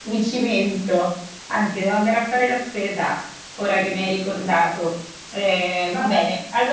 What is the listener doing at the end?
listening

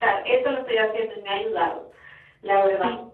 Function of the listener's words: taking over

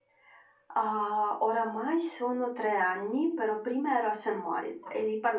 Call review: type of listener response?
listening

